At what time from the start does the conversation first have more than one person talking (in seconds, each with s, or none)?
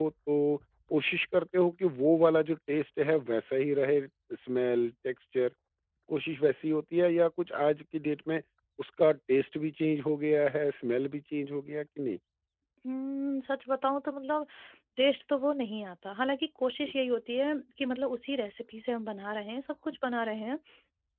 none